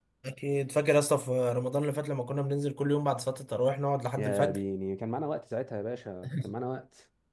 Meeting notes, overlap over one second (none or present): none